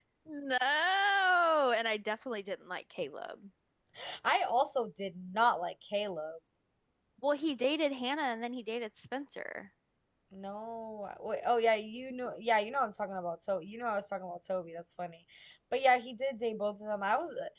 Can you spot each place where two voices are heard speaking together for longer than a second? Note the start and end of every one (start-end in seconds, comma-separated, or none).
none